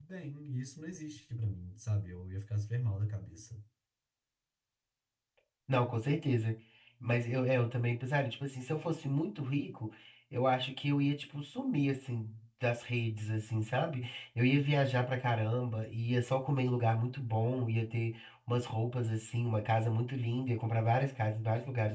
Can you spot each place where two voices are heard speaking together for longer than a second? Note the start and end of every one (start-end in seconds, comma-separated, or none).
none